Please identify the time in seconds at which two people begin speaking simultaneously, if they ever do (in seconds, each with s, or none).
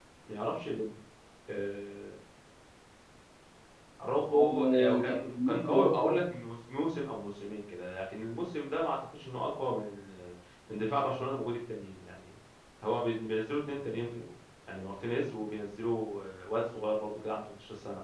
4.3 s